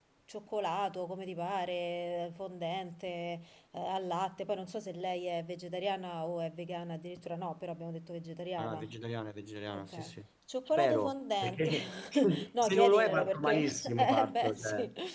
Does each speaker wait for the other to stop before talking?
No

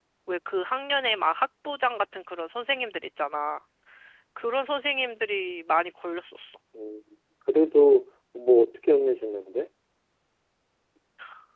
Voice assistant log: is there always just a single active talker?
Yes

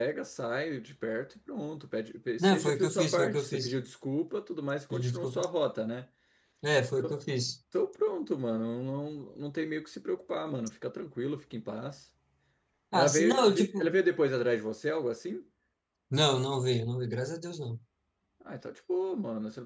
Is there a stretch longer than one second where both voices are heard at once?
Yes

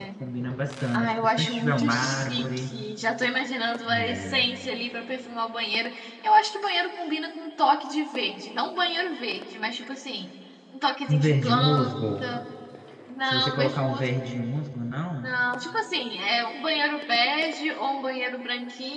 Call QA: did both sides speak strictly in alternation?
No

